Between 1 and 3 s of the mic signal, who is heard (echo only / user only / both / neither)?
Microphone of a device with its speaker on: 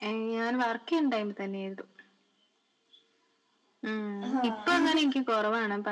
echo only